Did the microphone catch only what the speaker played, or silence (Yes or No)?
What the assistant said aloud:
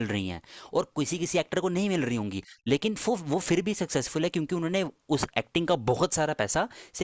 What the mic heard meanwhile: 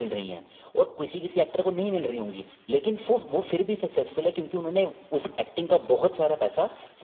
Yes